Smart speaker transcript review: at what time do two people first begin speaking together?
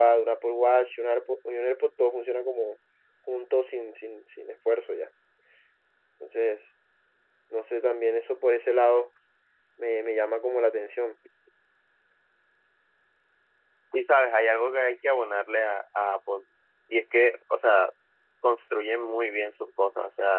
none

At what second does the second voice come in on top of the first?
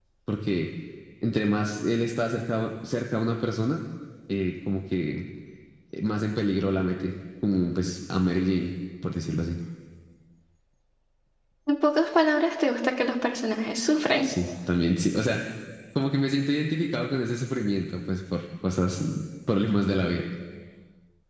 none

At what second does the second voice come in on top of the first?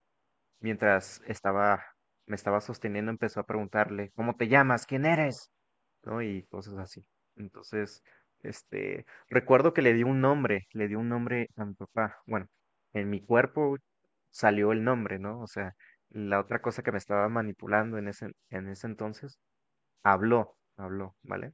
none

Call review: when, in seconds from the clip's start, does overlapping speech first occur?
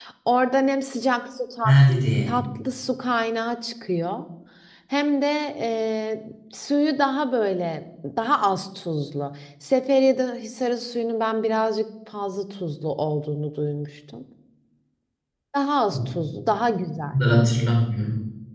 none

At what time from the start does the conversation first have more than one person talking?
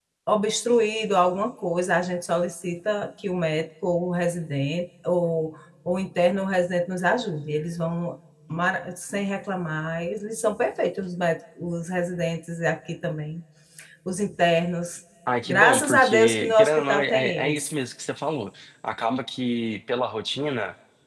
15.5 s

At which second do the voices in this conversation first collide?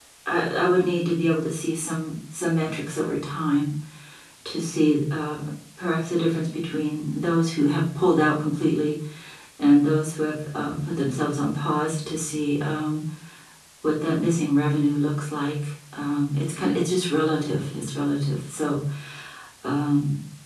none

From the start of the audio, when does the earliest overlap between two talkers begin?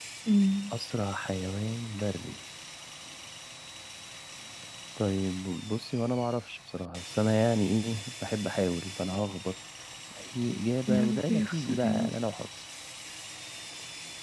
10.9 s

